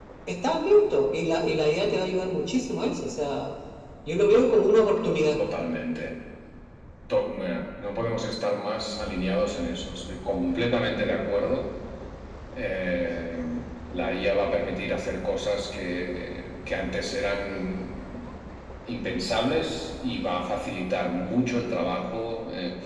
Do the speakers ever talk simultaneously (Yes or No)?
No